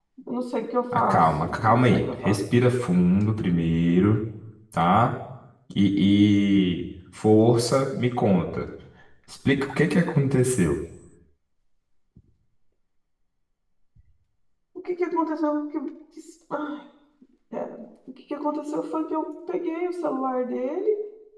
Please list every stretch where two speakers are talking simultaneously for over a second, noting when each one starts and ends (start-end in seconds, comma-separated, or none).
0.9-2.4